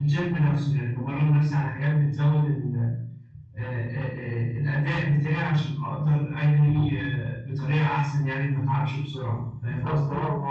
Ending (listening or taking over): taking over